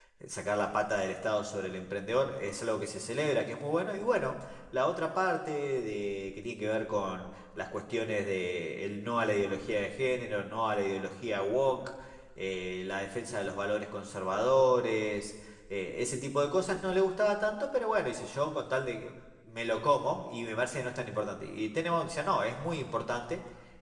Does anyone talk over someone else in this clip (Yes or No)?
No